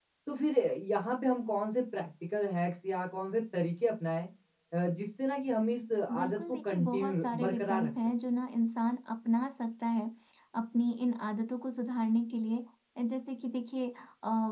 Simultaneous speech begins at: 6.1 s

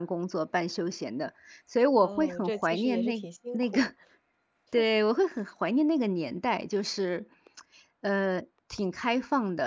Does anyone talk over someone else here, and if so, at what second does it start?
2.0 s

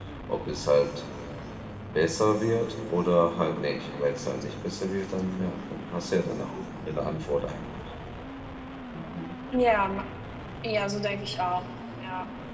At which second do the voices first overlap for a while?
none

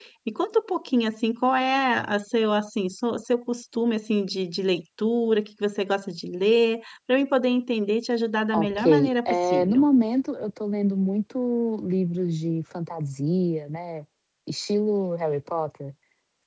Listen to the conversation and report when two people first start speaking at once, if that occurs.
8.5 s

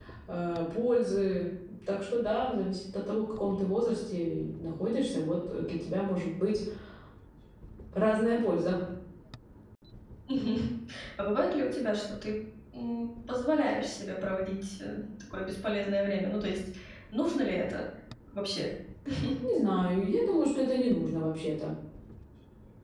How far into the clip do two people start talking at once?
none

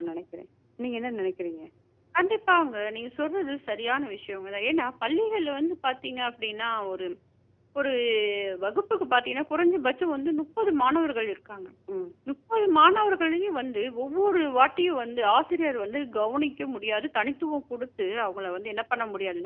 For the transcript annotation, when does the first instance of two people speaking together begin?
none

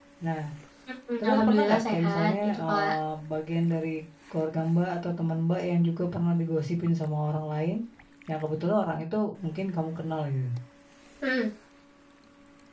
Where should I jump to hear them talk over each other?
1.2 s

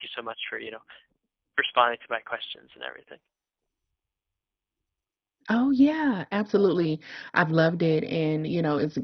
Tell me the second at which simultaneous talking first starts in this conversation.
none

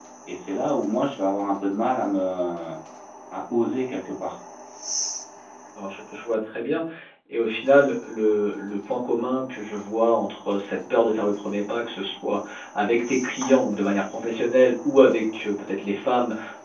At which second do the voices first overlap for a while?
none

